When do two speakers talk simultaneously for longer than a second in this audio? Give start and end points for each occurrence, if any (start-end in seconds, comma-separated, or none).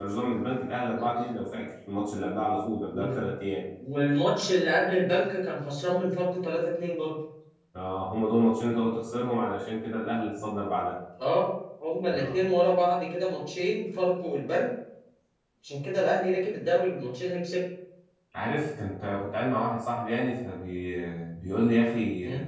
none